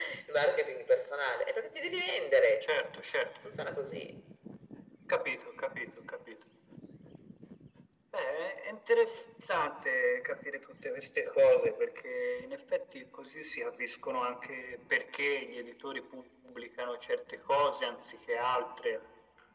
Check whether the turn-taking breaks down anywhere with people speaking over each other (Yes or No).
No